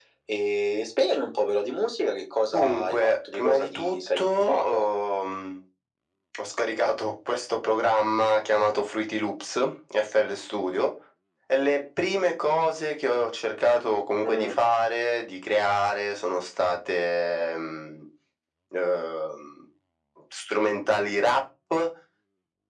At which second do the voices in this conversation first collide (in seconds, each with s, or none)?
2.5 s